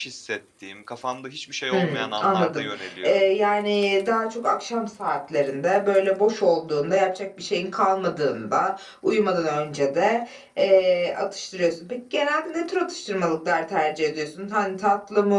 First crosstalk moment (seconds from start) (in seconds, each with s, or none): 1.7 s